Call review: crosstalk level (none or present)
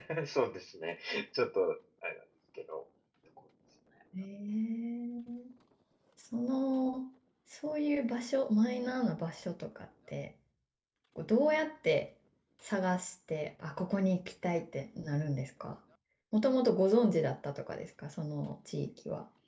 none